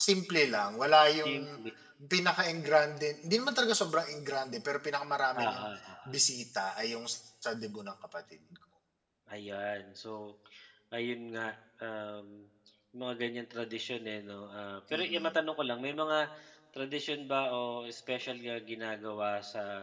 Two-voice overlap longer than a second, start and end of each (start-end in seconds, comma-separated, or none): none